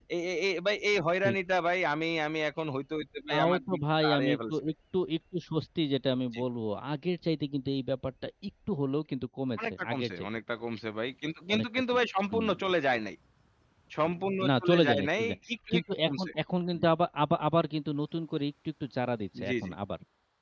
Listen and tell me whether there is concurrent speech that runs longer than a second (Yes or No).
Yes